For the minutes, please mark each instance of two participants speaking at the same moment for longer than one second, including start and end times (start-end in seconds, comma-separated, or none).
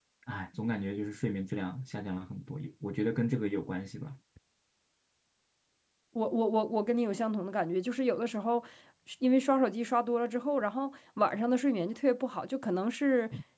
none